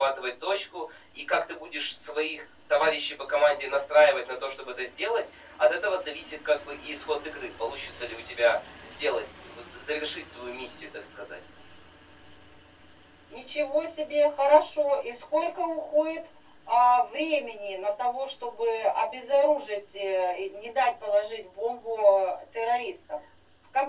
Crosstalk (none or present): none